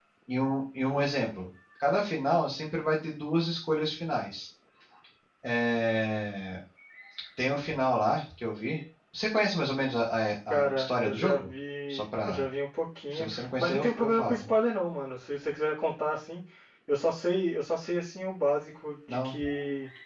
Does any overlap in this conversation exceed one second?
Yes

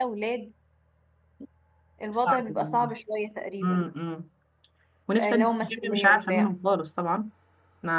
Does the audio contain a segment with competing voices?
Yes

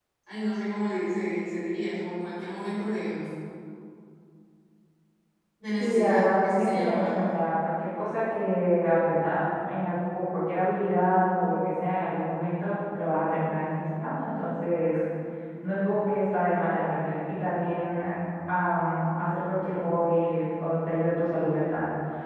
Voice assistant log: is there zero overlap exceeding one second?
No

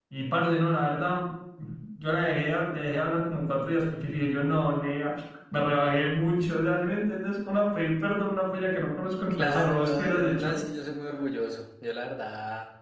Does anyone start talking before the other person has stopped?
Yes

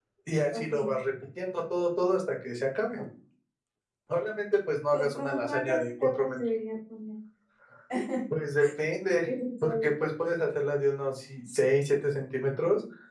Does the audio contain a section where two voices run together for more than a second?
Yes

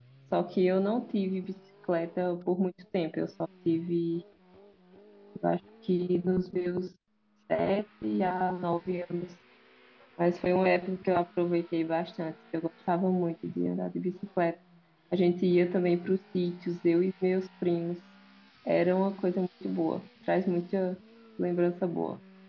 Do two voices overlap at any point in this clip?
No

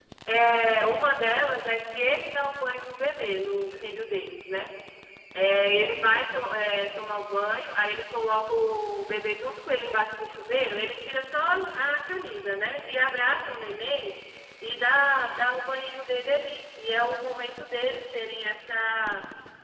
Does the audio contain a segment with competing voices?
No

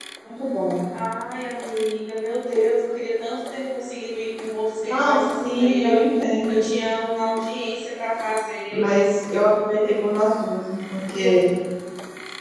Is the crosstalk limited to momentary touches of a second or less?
No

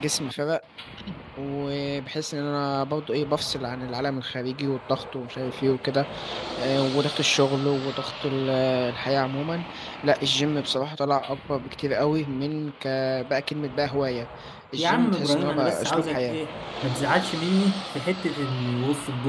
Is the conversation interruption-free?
No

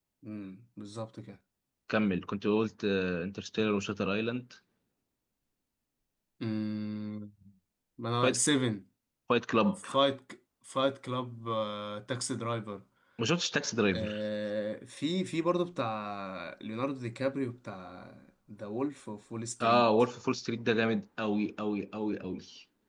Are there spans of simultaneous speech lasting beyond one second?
No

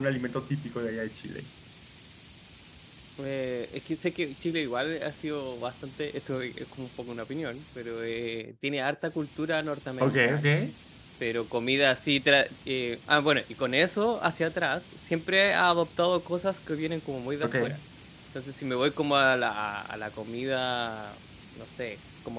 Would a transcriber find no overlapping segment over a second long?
Yes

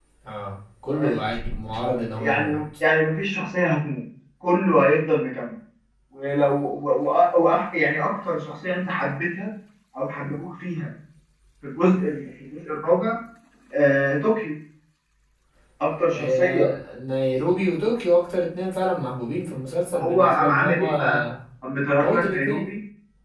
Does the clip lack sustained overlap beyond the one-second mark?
No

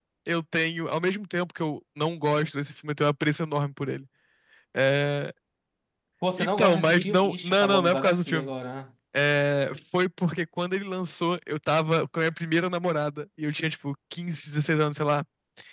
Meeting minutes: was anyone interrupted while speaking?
Yes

